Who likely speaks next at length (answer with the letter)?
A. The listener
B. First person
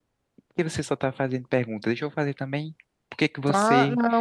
A